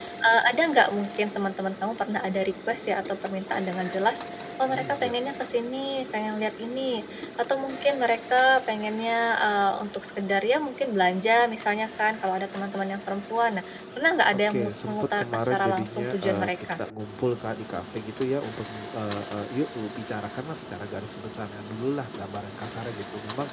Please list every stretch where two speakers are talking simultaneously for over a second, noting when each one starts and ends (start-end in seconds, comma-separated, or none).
14.3-16.8